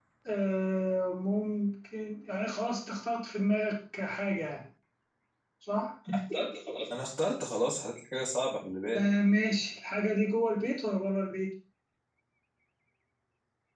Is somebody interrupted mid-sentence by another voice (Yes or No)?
No